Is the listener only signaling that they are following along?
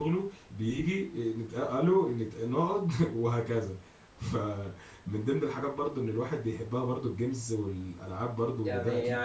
No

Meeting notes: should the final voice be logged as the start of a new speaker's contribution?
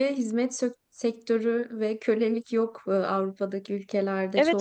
Yes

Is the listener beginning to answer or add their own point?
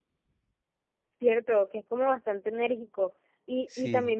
No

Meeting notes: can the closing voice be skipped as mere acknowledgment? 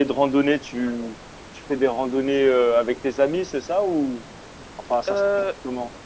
No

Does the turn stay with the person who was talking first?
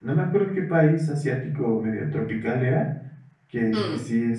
Yes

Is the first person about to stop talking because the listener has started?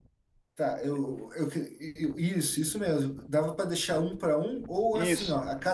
No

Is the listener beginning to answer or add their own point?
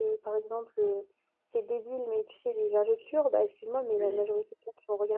No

